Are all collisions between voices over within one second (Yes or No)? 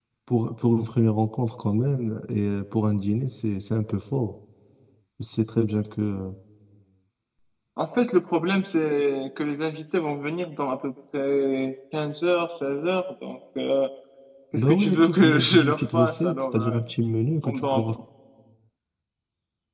No